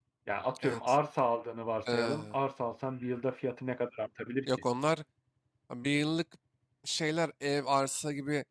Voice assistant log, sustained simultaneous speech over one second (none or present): none